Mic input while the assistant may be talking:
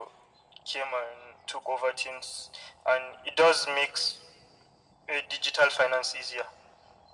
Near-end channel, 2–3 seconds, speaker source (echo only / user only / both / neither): echo only